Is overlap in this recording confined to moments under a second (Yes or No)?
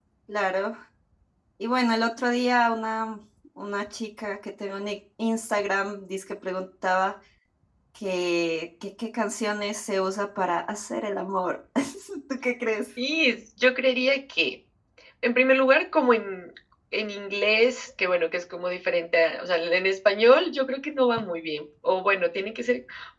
Yes